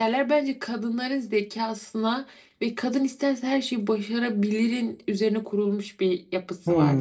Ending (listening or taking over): taking over